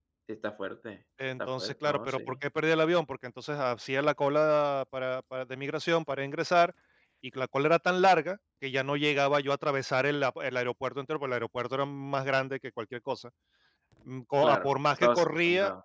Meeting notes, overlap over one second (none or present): present